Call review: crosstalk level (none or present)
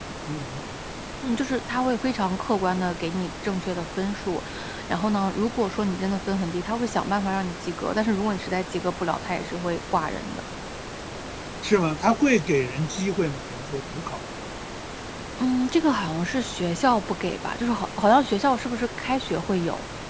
none